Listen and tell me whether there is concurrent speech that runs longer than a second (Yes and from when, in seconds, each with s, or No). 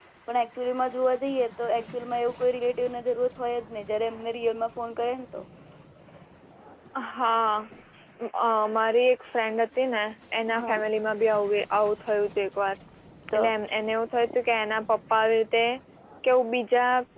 No